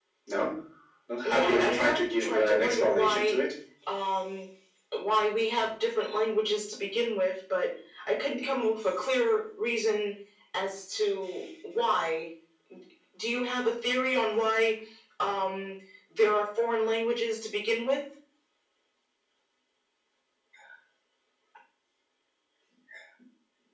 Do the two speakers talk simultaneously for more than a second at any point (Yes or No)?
Yes